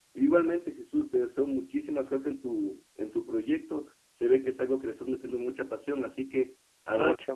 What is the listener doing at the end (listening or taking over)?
listening